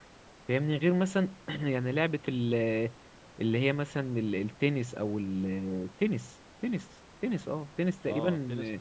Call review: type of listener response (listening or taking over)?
taking over